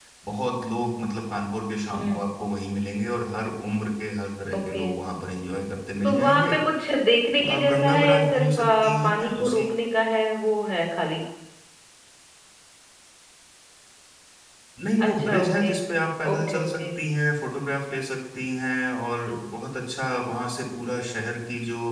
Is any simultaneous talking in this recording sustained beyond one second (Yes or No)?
Yes